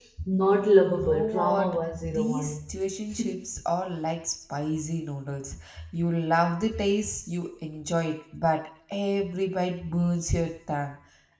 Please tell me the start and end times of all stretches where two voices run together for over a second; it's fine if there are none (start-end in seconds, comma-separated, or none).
0.9-2.6